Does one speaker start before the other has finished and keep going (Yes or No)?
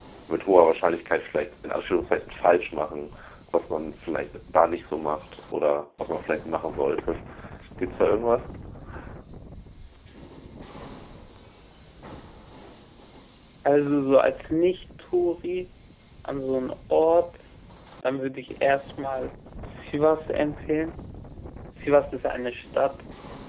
No